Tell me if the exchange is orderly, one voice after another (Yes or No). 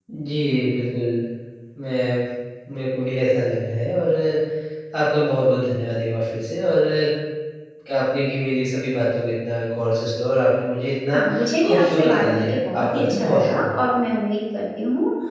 No